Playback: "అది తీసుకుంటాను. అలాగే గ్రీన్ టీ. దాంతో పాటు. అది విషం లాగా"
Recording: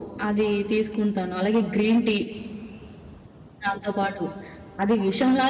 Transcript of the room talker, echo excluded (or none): none